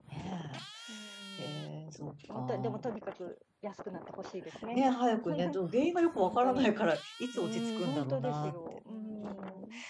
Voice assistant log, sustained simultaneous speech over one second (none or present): present